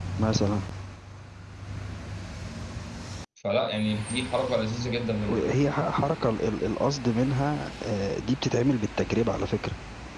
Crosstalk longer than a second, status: none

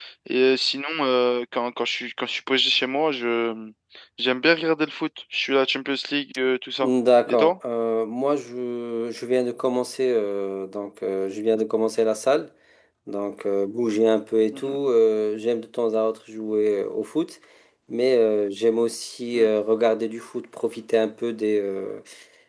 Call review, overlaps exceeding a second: none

